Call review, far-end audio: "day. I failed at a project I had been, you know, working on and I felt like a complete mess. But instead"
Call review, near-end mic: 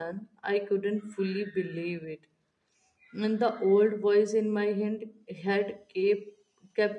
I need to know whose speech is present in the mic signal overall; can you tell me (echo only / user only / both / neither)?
user only